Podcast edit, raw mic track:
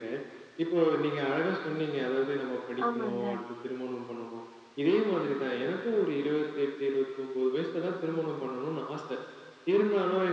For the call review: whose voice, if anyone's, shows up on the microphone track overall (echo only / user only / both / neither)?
both